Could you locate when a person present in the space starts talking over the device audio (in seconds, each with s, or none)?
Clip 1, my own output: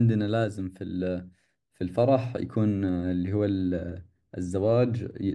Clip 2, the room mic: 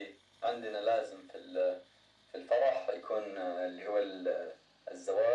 none